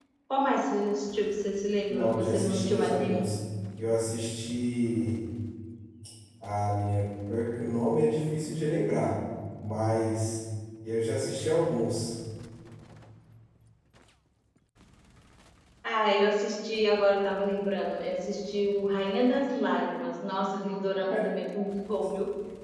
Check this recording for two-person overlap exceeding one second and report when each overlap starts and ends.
1.9-3.3

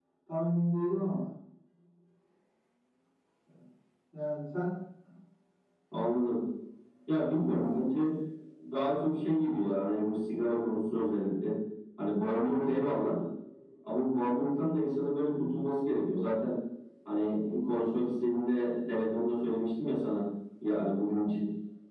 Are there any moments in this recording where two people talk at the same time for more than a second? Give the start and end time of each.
none

